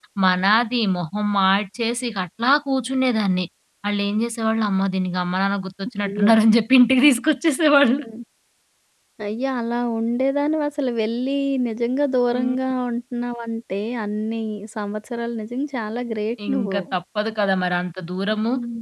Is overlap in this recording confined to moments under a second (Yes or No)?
Yes